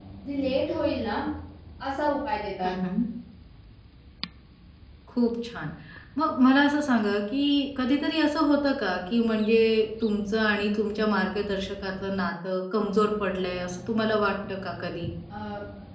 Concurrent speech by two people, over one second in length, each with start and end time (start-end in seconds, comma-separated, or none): none